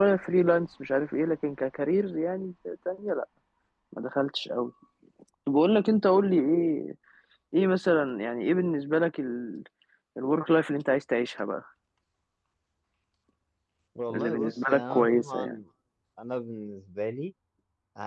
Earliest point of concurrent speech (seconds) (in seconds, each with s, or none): 14.1 s